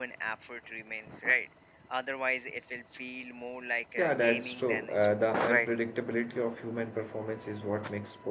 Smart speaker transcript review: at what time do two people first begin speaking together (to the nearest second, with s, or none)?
4 s